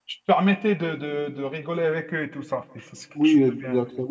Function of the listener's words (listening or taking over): taking over